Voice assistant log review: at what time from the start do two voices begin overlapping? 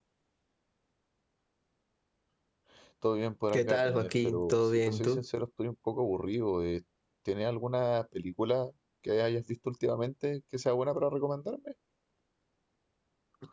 3.5 s

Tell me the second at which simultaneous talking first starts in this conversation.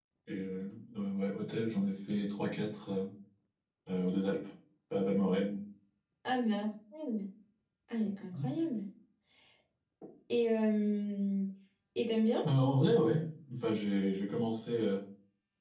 none

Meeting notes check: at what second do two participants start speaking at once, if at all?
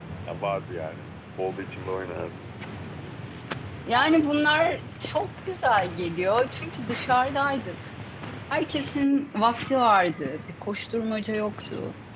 none

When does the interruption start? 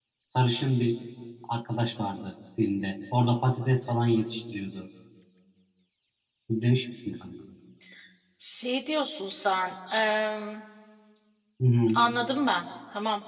none

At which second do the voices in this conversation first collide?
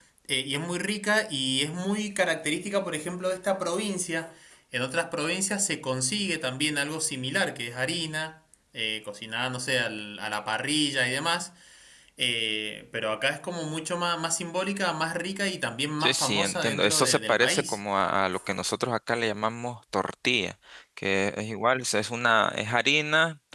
16.0 s

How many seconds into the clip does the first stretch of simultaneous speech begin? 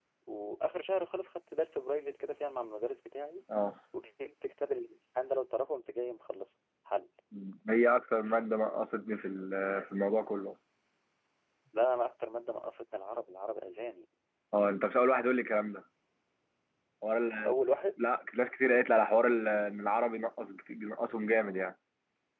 none

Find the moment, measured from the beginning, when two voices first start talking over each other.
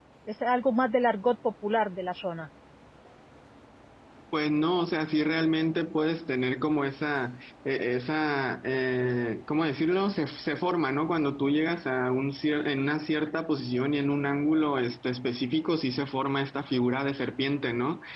none

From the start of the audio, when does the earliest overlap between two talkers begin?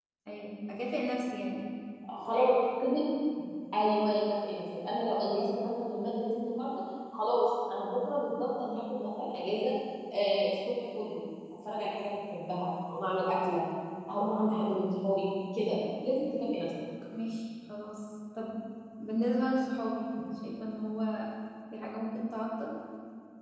none

